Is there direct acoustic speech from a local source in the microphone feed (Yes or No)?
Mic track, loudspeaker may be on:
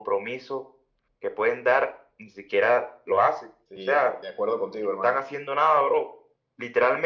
Yes